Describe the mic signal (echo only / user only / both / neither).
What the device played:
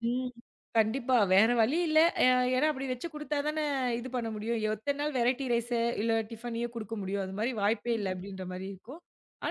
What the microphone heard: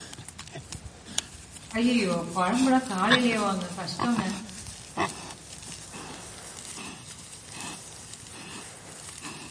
user only